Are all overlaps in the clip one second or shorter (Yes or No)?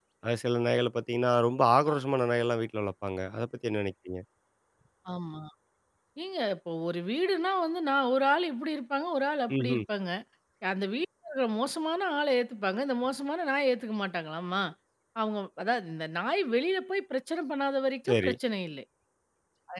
Yes